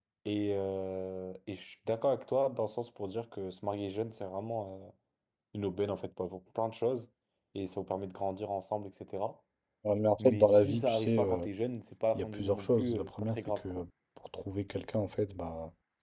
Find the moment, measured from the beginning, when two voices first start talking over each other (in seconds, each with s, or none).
10.2 s